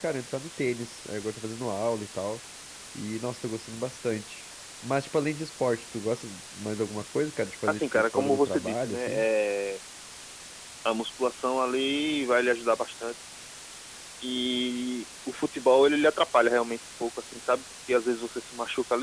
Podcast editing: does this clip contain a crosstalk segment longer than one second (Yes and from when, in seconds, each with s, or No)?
Yes, from 7.7 s